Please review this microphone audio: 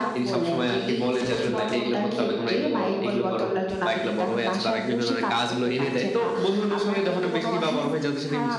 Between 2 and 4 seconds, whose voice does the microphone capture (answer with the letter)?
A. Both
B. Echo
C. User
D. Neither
B